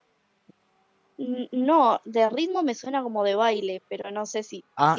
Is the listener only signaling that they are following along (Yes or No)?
No